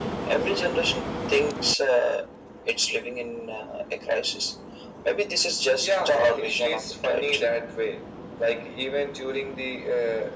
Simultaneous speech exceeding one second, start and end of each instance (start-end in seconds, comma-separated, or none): 5.8-7.3